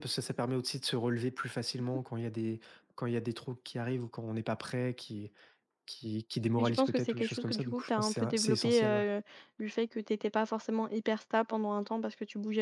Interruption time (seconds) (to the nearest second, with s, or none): 7 s